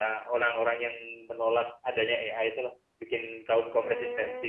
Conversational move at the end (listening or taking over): taking over